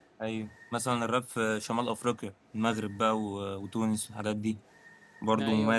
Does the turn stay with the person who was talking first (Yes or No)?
No